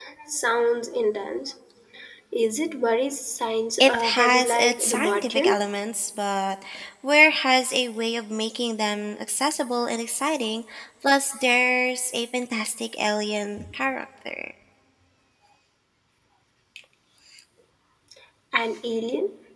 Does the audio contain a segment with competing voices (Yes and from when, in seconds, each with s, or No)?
Yes, from 3.8 s